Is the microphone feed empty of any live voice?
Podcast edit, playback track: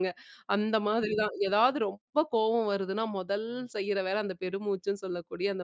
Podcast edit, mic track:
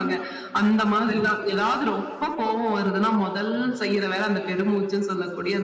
Yes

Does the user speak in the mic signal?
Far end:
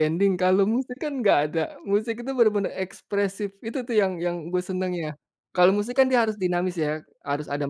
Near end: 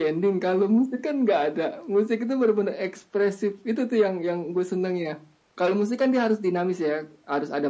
No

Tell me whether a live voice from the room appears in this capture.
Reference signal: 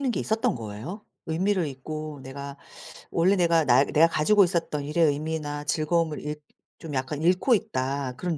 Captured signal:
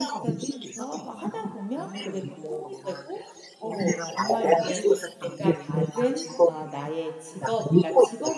Yes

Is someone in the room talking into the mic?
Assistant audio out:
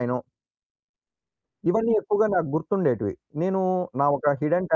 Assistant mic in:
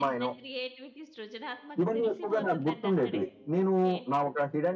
Yes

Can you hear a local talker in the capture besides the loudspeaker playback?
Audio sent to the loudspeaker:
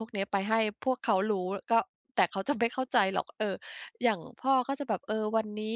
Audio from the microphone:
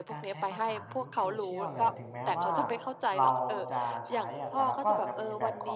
Yes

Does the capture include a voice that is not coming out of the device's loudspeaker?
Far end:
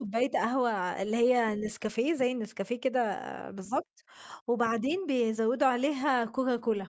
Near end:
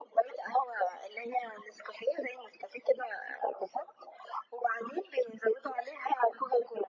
No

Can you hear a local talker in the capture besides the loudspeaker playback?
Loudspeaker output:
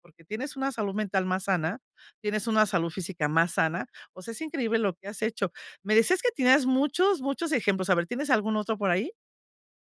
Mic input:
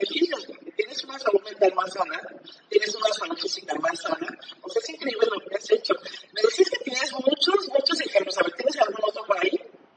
No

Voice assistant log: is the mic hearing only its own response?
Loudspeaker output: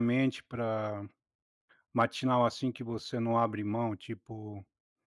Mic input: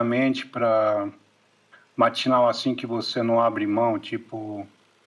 Yes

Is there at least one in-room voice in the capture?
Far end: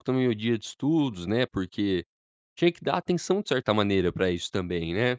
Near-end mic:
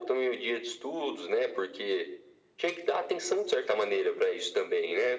No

